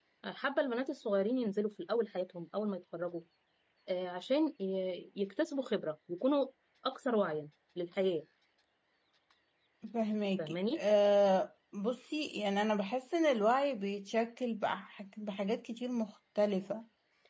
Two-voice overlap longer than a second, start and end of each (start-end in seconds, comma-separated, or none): none